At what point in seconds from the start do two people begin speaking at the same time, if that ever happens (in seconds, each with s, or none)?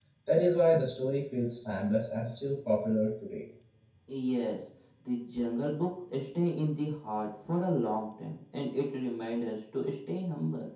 none